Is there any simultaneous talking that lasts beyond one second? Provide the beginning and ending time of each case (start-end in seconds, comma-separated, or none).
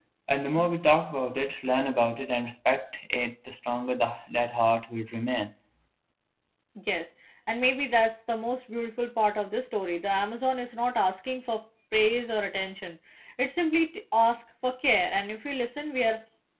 none